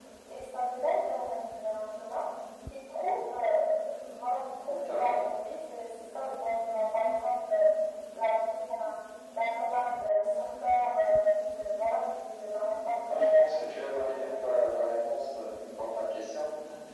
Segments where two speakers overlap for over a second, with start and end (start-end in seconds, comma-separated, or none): 13.1-14.6